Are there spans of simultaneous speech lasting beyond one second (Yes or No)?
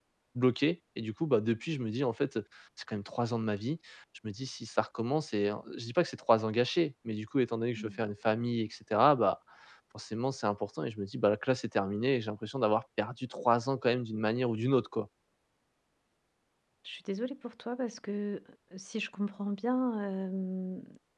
No